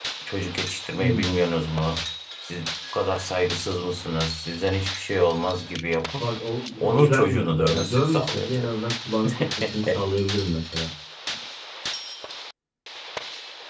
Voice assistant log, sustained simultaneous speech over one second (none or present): present